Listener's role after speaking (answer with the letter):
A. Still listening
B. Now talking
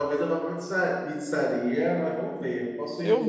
A